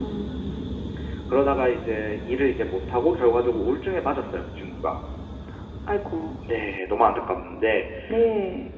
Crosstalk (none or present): none